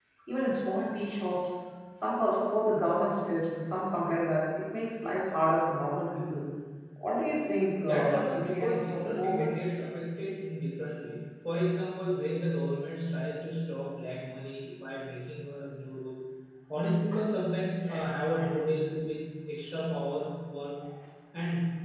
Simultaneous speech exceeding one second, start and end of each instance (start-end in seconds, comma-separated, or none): 7.8-9.7